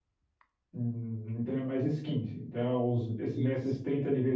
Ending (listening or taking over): listening